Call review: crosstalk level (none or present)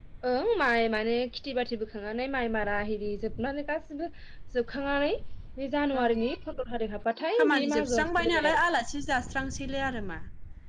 present